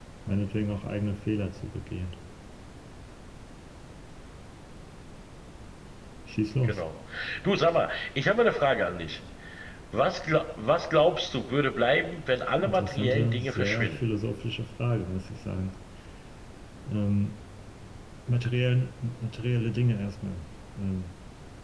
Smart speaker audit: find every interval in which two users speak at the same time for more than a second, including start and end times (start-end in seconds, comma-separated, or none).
12.6-14.0